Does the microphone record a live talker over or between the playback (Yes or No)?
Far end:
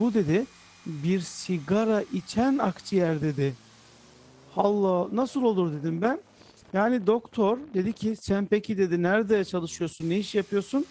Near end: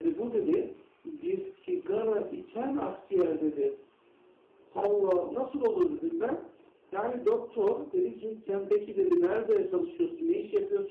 No